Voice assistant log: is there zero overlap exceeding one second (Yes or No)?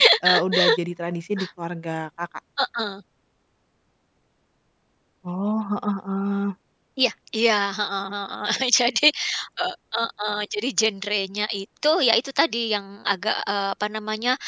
Yes